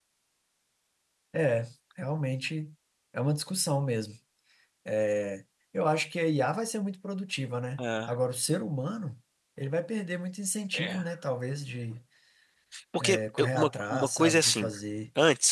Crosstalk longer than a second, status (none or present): present